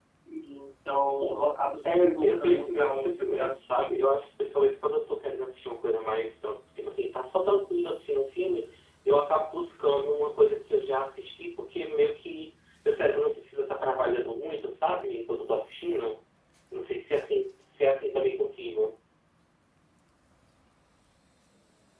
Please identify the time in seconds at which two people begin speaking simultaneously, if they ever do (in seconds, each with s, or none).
1.8 s